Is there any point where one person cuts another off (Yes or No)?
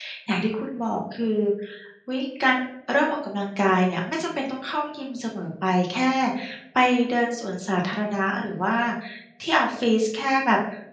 No